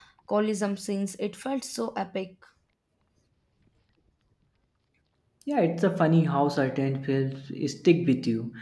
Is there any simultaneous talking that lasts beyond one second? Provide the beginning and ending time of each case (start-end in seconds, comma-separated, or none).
none